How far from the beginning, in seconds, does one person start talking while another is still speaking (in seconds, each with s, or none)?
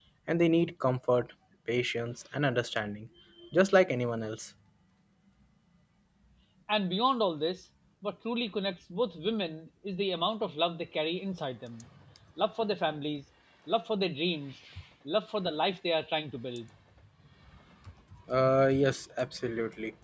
none